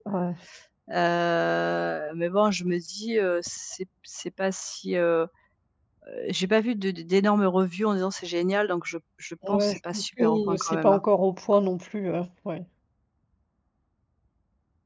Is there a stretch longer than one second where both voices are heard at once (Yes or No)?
Yes